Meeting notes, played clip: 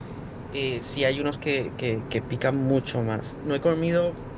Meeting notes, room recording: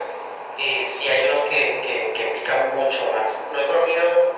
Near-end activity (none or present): none